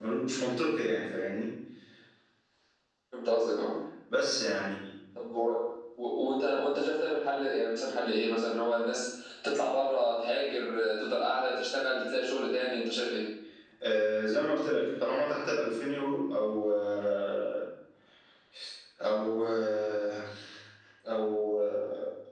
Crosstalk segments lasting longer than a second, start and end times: none

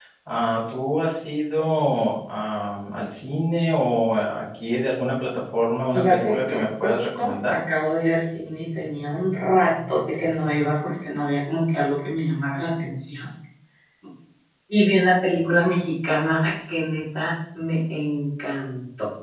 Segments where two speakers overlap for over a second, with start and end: 5.9-7.5

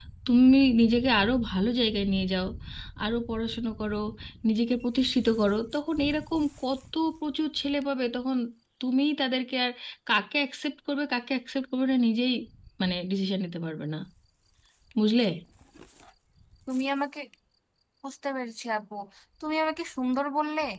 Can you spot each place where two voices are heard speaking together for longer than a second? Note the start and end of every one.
none

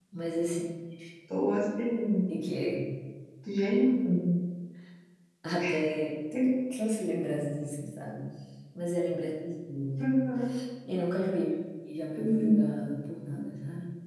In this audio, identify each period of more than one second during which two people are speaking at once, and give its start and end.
none

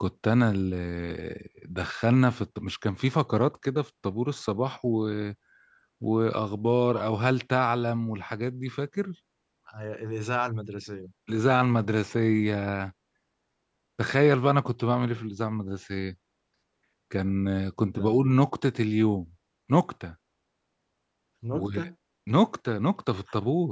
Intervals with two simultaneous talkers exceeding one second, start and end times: none

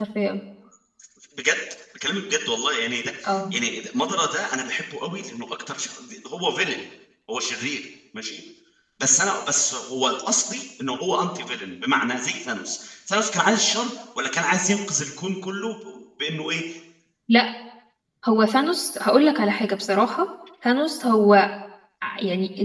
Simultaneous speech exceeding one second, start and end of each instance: none

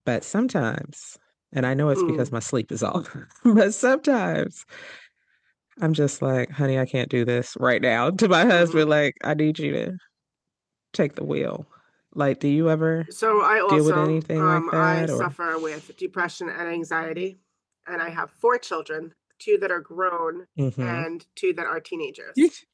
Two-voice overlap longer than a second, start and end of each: 13.7-15.3

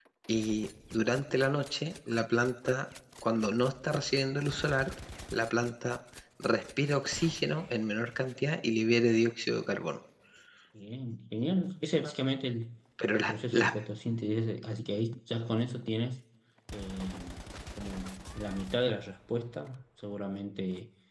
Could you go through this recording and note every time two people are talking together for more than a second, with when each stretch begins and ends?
none

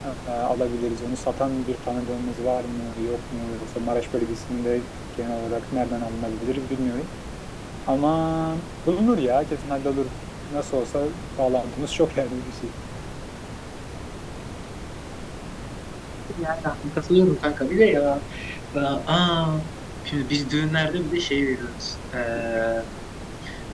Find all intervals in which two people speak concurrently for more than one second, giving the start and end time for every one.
none

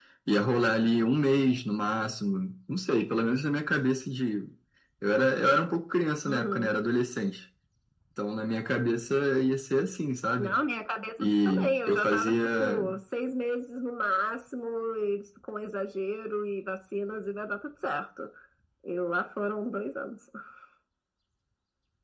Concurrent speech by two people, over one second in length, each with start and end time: 11.2-12.8

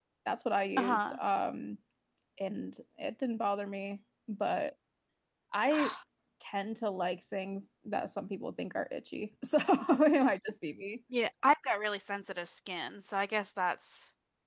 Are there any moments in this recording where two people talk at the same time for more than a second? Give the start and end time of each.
none

